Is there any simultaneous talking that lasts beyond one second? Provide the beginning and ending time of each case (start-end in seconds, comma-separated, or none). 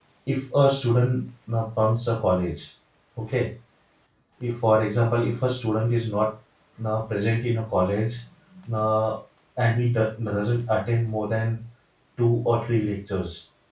none